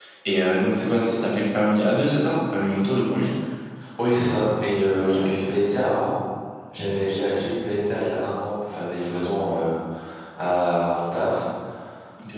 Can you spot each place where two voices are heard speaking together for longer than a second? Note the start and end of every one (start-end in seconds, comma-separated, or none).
none